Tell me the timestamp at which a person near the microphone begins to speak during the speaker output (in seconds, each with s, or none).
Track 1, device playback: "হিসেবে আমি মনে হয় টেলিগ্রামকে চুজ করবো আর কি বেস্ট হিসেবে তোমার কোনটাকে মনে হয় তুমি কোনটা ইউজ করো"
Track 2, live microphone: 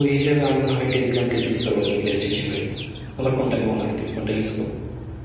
none